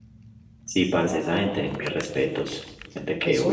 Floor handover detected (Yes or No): Yes